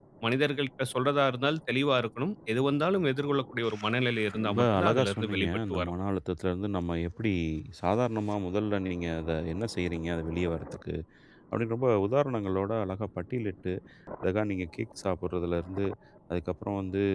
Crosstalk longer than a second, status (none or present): present